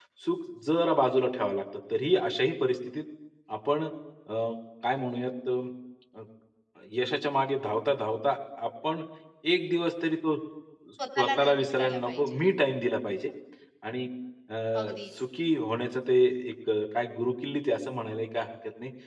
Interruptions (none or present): present